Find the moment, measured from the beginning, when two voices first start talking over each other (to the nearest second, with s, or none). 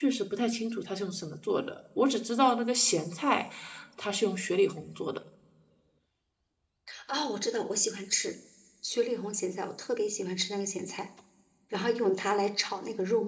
none